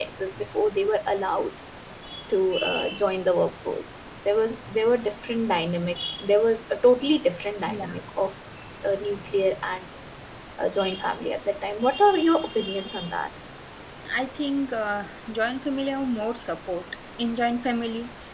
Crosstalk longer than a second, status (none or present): none